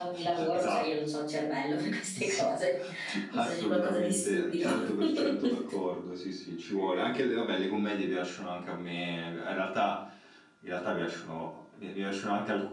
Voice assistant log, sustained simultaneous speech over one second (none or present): present